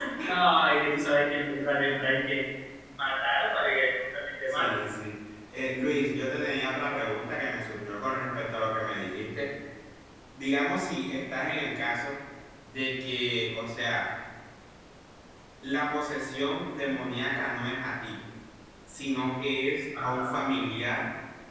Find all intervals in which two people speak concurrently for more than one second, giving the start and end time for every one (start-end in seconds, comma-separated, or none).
none